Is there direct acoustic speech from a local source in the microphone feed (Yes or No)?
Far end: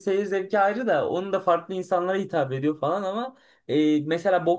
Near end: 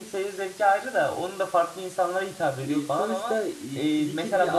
Yes